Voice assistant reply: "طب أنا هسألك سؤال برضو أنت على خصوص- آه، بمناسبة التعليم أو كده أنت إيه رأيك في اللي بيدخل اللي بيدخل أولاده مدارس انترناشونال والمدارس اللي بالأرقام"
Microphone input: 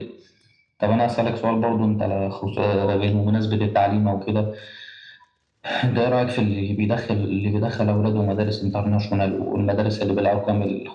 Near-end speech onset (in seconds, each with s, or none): none